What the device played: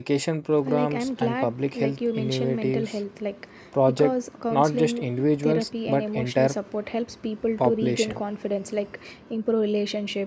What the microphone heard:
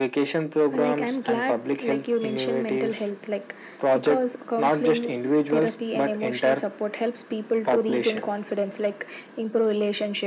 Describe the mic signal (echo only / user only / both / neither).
echo only